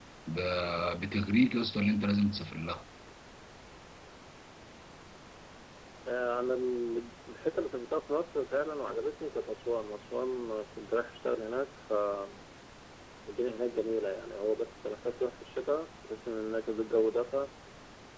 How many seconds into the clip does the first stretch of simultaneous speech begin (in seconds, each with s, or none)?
none